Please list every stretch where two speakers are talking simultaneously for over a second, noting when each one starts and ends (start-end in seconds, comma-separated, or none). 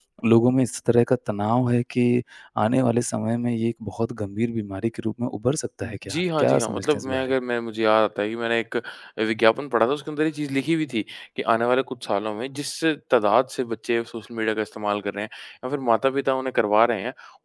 6.1-7.3